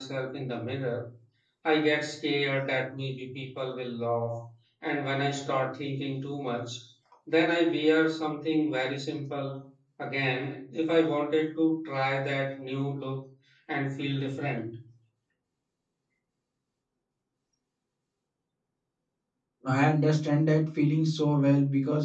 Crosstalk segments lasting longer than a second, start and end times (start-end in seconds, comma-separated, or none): none